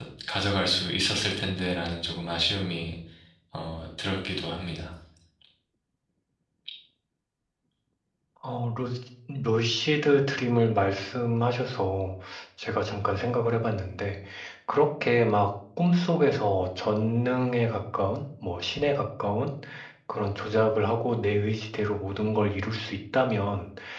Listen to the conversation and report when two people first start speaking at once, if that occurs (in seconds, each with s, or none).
none